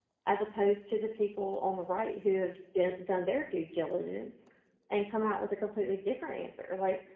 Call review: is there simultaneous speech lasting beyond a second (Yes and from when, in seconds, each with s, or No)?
No